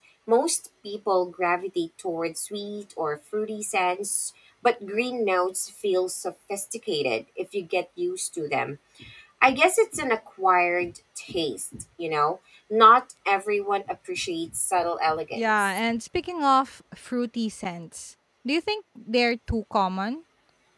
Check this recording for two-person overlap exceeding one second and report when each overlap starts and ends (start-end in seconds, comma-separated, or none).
none